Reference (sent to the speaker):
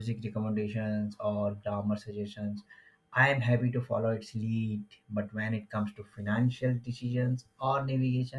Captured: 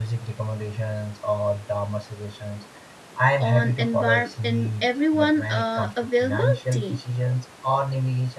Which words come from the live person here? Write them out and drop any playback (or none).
on envir- in everyone uh, availability,